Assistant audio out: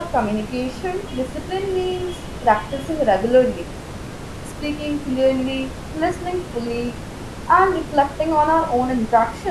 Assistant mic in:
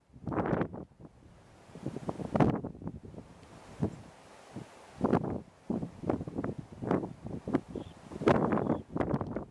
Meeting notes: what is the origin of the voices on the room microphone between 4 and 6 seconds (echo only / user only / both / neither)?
neither